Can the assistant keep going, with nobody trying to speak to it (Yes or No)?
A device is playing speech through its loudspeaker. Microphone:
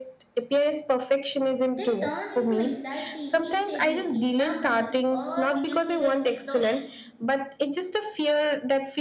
No